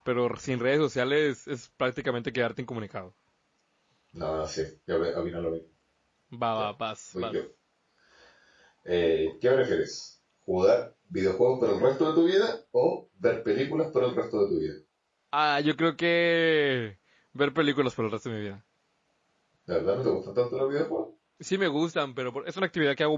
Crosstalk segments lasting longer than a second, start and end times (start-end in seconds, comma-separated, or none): none